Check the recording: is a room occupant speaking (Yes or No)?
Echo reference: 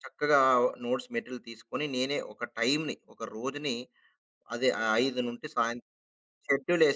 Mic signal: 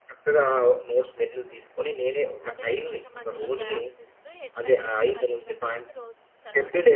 Yes